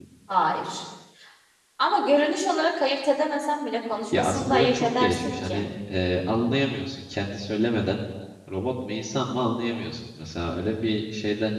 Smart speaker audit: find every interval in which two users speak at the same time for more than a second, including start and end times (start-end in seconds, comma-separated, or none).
4.1-5.6